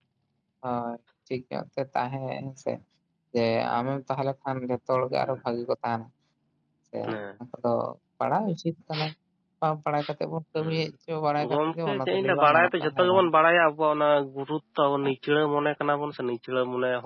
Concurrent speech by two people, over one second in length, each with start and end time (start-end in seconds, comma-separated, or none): 11.4-13.2